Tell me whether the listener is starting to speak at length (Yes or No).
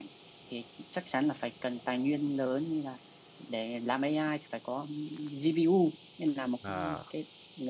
No